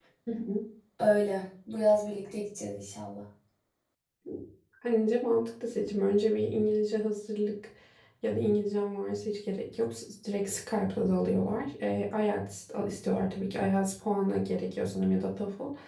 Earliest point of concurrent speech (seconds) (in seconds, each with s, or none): none